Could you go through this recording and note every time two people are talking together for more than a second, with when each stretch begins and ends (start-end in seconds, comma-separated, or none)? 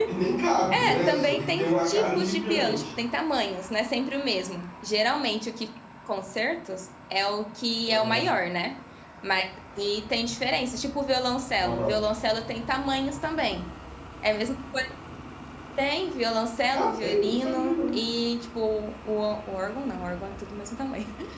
0.7-3.0, 16.7-18.0